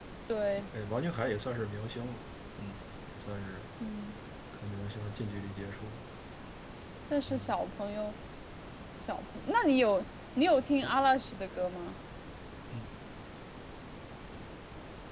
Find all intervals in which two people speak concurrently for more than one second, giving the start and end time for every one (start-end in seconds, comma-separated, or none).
none